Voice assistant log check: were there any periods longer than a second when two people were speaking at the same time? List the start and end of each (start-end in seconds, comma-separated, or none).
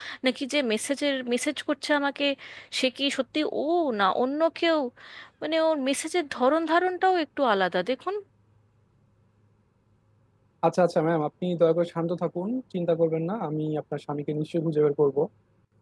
none